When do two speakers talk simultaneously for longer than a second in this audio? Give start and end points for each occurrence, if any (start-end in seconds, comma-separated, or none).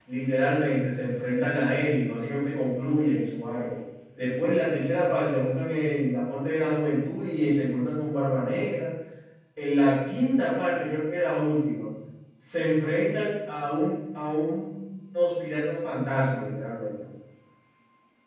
none